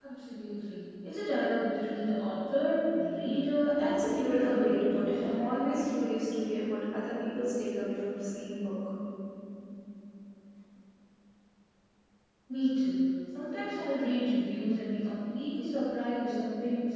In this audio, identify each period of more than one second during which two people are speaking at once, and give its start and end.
3.8-5.1

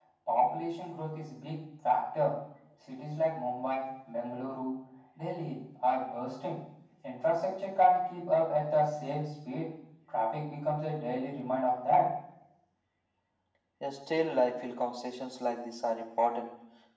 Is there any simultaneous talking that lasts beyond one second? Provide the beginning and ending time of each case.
none

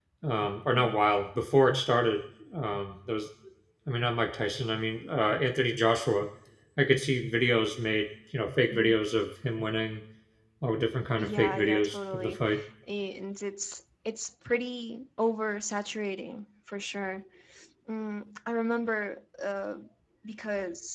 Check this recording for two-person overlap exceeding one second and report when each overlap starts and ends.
11.2-12.4

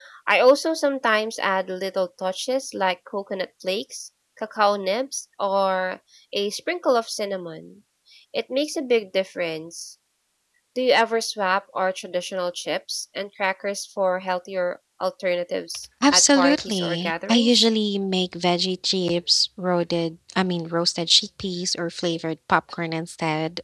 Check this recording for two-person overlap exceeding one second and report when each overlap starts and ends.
16.1-17.6

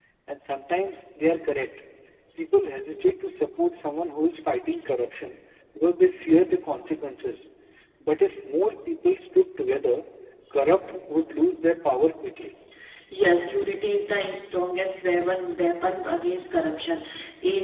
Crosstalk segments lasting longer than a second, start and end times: none

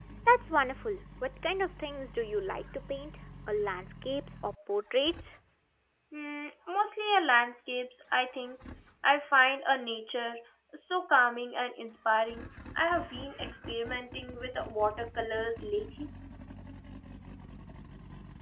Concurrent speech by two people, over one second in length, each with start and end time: none

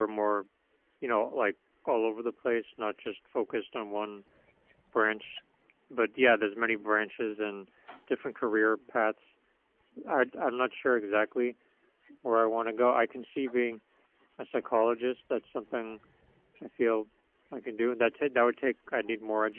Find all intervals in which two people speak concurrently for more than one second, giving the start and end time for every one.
none

